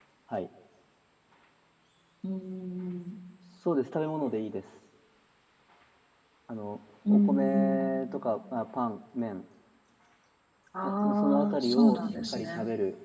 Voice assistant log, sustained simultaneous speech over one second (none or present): present